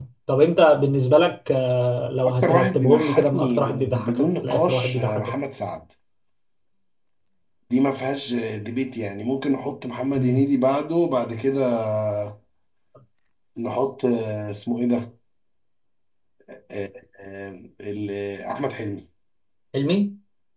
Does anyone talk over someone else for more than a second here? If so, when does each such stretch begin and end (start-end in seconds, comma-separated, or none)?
2.2-5.3